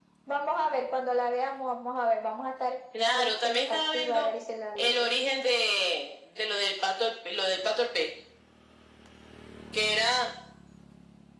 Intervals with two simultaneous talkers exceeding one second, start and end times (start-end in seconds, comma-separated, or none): 3.1-4.3